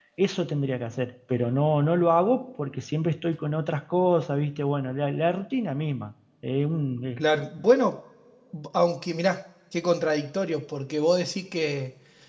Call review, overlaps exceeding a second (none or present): none